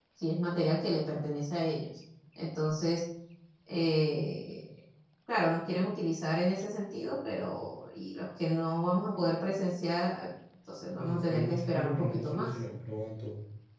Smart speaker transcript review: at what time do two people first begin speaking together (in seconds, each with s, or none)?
11.0 s